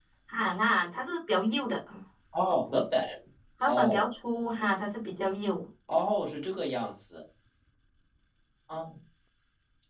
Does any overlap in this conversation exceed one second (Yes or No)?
No